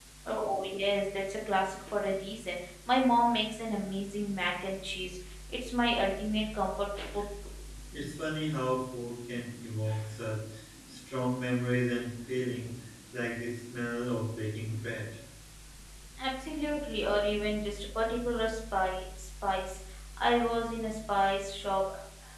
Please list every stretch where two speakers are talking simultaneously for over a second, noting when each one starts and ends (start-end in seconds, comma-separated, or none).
none